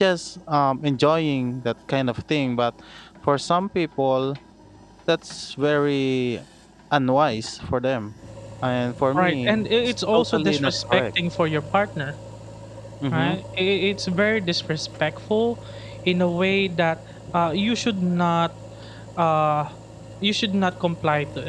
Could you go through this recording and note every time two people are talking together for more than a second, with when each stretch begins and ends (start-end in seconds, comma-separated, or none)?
9.2-11.0